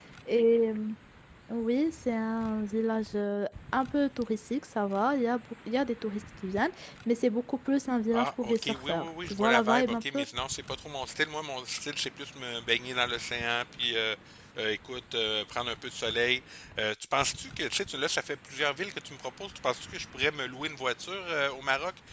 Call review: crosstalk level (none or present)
present